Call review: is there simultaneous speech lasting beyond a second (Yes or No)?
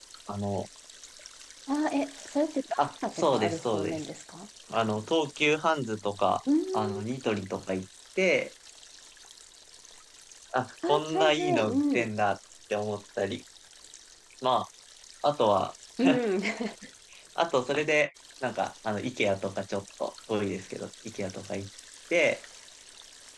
Yes